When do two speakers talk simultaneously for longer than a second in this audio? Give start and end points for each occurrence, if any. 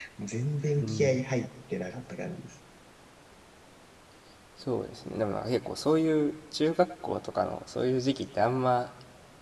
none

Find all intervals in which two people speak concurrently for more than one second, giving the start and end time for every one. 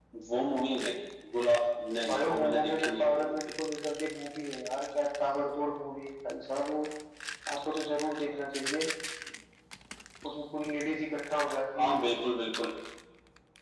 2.1-3.4

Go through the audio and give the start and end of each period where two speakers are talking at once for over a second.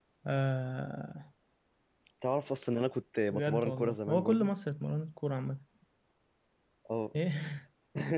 3.3-4.5

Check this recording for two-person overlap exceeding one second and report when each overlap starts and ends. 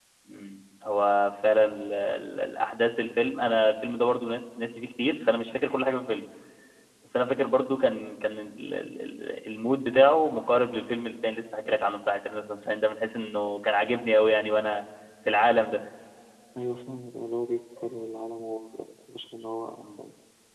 none

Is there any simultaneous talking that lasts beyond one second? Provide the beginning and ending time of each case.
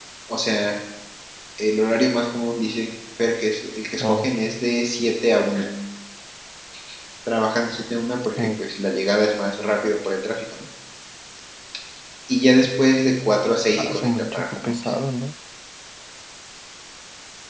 13.7-14.9

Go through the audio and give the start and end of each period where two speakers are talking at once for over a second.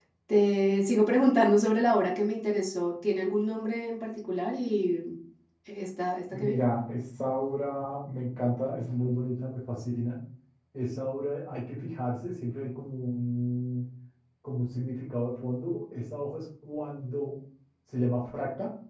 none

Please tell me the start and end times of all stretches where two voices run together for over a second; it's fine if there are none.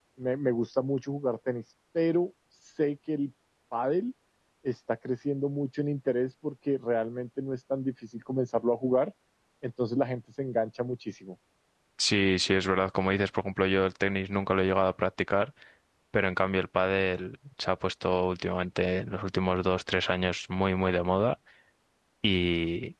none

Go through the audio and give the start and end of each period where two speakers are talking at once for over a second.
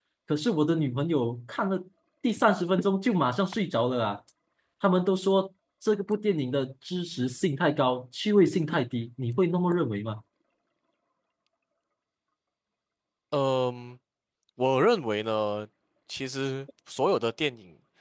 none

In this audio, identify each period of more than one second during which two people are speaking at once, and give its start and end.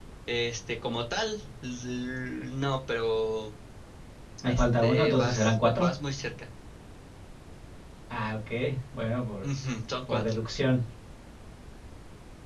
4.4-5.9

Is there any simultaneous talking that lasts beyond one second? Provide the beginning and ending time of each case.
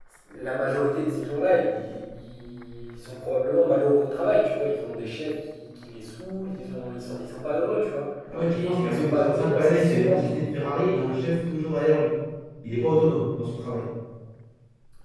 8.5-10.3

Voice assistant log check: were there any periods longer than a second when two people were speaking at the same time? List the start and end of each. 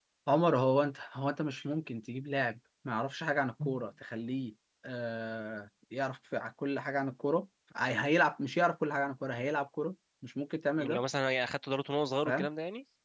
none

